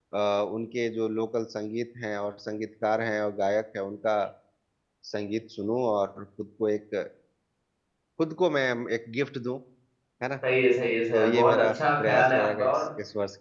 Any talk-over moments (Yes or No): Yes